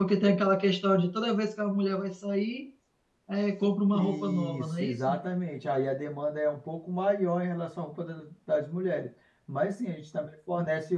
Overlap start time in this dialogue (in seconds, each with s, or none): 3.9 s